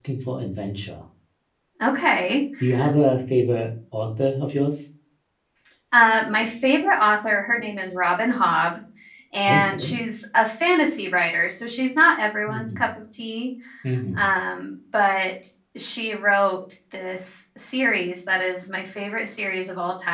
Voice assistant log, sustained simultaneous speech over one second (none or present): none